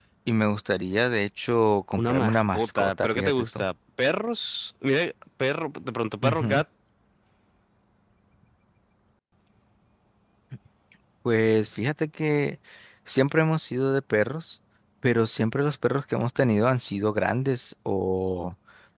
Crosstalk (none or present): present